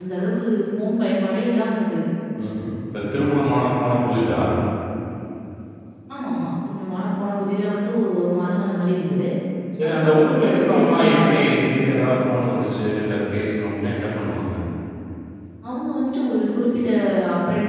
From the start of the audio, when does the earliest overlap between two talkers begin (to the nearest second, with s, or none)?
10 s